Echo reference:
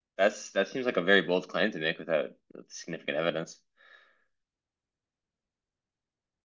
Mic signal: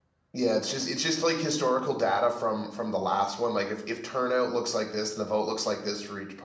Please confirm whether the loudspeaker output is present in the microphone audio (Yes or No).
No